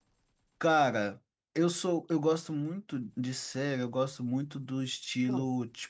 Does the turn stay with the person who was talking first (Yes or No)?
Yes